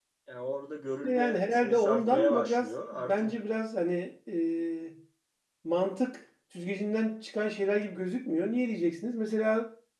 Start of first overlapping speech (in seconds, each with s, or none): 1.0 s